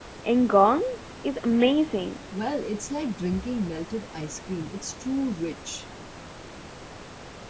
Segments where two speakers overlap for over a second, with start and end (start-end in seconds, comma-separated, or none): none